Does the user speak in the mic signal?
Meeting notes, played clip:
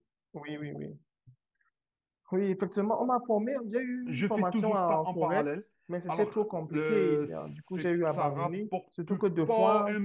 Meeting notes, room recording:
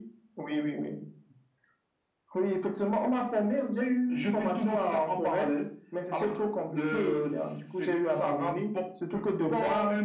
No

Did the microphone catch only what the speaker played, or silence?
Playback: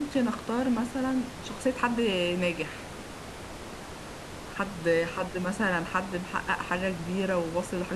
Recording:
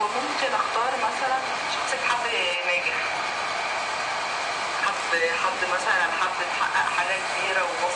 Yes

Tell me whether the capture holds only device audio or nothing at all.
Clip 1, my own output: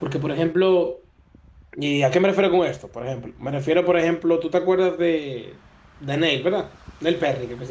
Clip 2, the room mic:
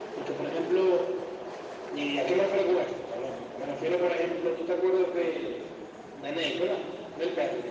Yes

